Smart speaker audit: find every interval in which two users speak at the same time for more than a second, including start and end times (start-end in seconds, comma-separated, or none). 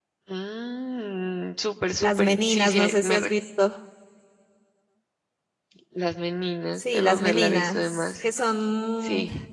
2.0-3.3, 6.8-8.1